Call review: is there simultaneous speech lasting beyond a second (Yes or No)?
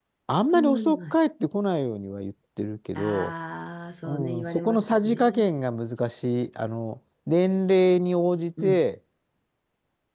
Yes